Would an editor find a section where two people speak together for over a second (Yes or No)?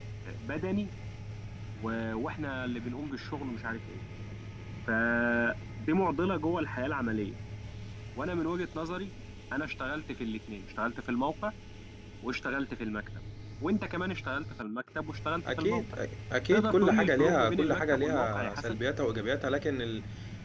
Yes